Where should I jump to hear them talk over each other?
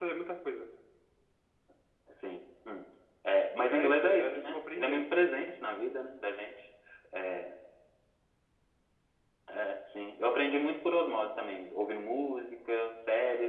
4 s

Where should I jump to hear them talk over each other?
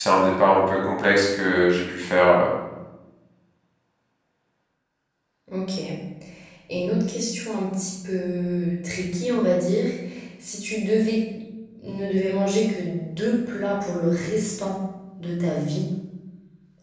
none

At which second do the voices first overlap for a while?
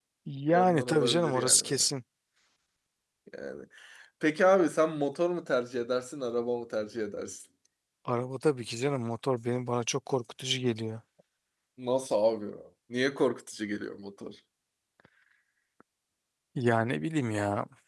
1 s

